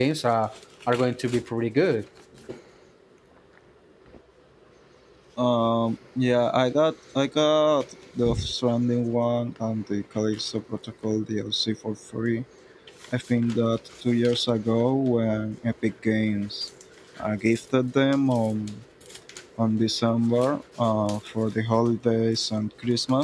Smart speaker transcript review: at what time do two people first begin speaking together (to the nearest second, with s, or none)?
none